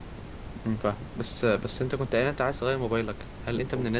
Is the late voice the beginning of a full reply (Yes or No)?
No